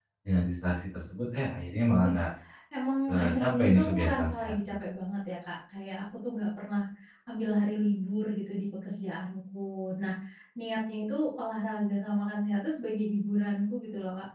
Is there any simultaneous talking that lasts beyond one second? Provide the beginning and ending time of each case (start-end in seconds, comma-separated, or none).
3.1-4.5